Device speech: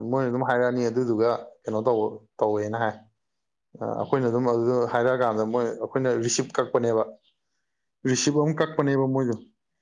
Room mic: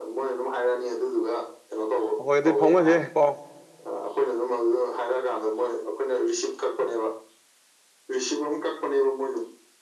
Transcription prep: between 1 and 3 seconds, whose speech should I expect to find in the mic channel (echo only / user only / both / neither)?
both